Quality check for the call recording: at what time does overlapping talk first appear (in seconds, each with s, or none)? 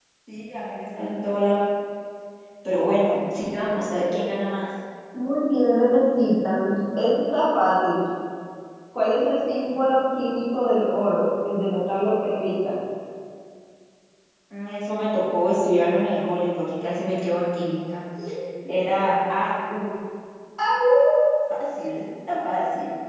none